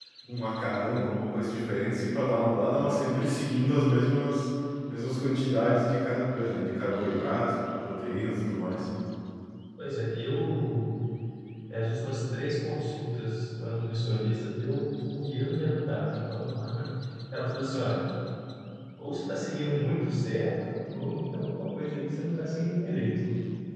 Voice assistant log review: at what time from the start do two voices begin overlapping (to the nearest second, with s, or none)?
none